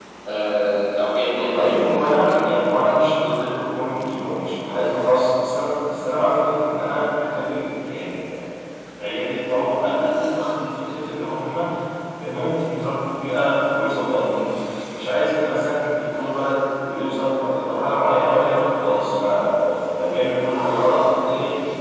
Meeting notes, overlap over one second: present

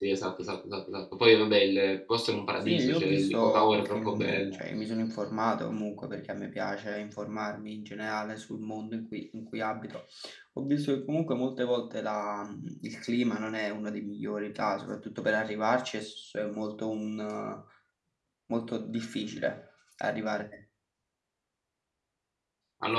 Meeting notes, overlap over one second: present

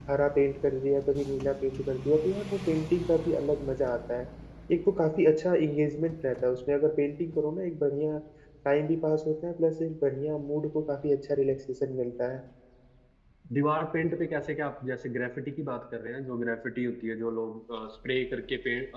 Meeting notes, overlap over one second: none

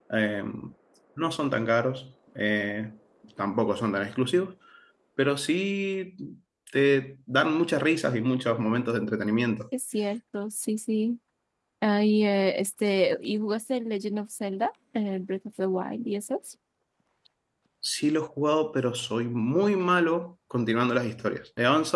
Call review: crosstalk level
none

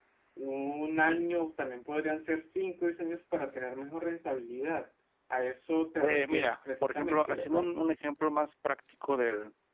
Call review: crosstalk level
present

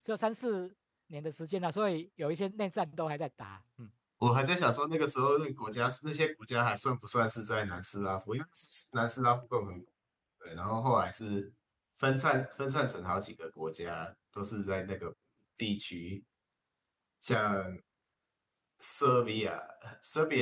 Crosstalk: none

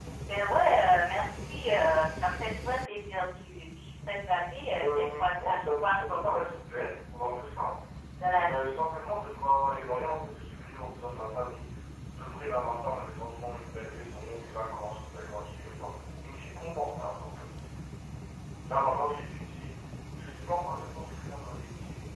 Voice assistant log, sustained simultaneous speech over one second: present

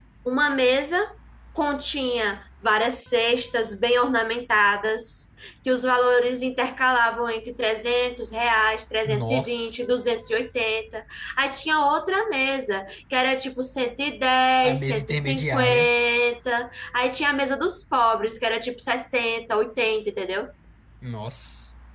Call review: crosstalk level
present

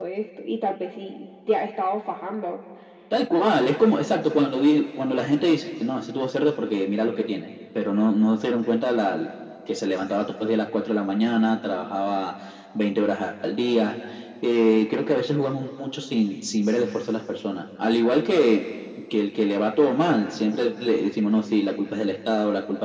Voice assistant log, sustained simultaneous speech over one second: none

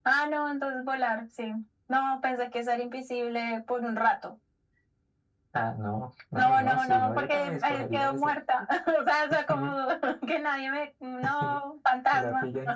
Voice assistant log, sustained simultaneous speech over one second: present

